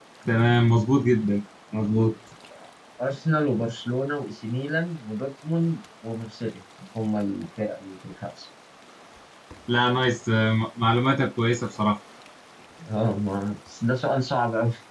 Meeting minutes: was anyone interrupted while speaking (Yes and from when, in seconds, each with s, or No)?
No